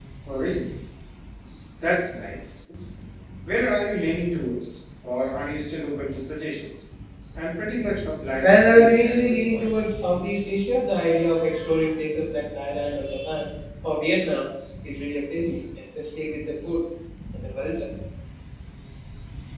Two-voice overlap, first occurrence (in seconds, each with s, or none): 8.4 s